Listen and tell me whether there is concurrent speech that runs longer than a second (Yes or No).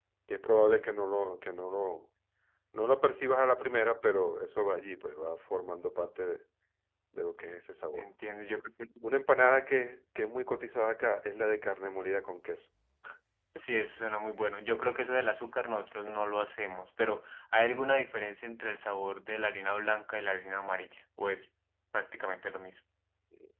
No